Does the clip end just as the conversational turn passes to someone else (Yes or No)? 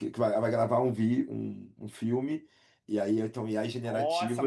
Yes